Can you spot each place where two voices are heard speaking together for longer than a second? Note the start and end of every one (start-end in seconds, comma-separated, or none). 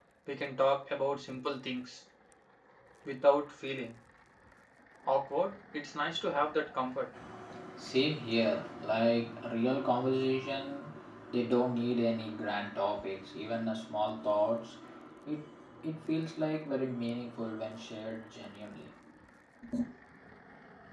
none